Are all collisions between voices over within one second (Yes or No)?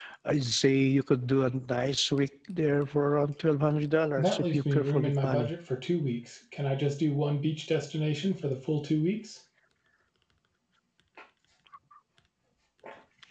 No